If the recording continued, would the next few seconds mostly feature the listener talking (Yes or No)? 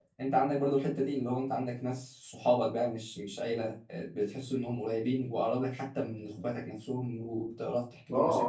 Yes